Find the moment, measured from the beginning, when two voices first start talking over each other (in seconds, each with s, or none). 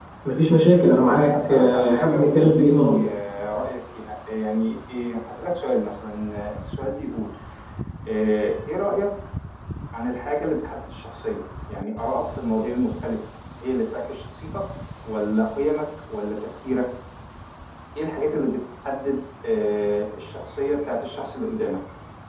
1.1 s